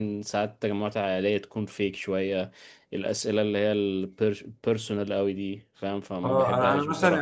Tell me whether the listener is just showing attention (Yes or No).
No